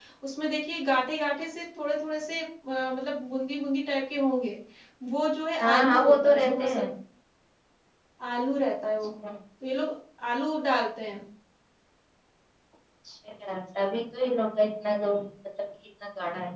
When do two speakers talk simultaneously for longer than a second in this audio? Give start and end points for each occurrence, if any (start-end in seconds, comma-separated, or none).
5.6-6.8